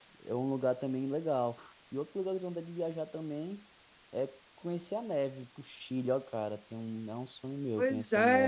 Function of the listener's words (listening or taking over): taking over